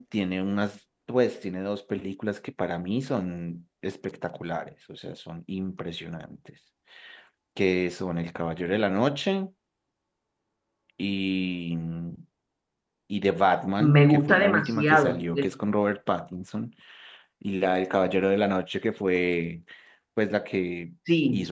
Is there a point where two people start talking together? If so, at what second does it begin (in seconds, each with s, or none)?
13.8 s